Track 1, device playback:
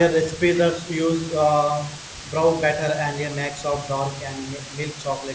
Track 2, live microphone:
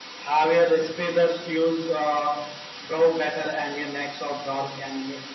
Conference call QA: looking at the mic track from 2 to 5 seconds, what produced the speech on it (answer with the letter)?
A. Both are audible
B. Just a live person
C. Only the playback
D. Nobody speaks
C